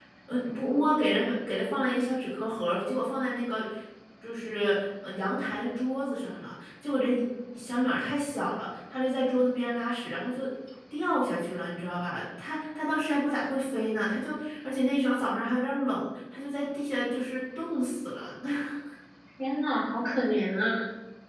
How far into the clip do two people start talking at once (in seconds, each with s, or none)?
none